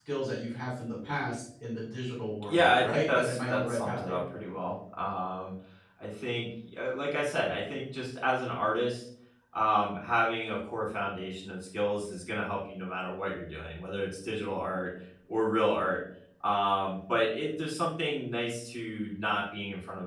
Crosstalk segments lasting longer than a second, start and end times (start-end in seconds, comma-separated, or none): 2.5-4.2